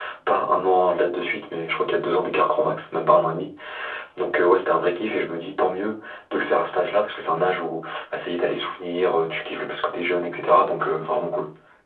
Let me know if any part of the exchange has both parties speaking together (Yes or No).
No